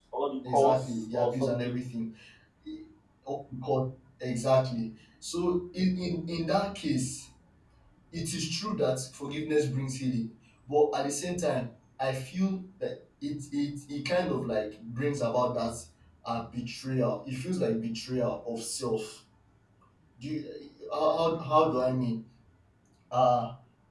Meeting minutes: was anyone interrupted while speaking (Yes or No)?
Yes